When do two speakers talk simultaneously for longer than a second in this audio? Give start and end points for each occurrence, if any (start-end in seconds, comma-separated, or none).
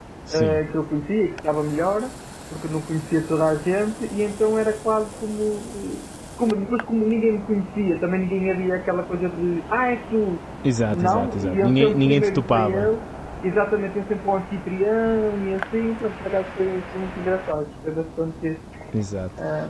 10.9-12.9